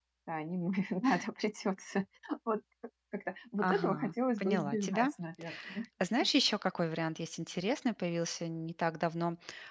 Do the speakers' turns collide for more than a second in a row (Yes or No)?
Yes